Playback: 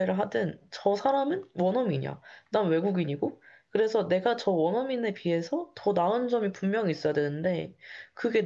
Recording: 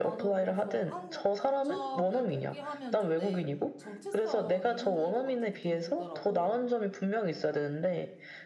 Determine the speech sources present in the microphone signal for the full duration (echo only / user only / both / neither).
both